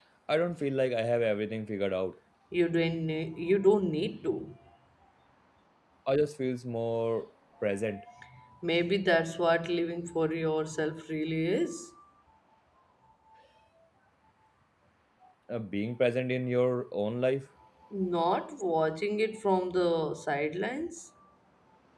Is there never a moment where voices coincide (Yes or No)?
Yes